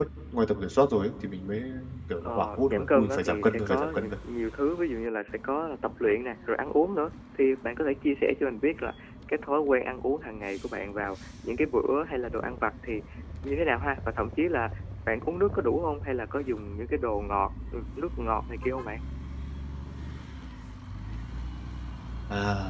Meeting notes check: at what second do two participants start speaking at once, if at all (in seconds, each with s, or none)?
2.2 s